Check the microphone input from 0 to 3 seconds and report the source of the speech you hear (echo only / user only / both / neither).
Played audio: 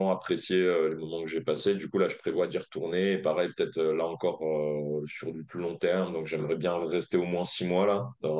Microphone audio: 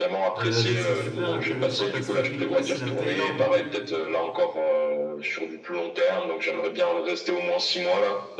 both